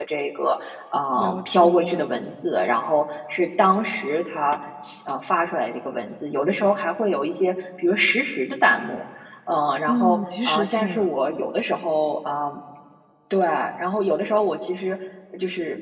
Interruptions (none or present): present